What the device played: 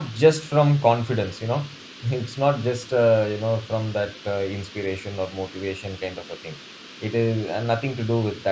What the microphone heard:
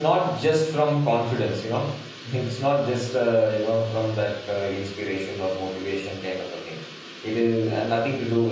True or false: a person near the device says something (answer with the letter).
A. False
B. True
A